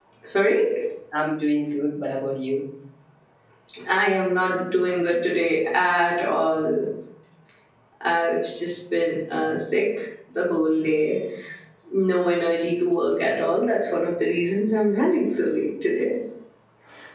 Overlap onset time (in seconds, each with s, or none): none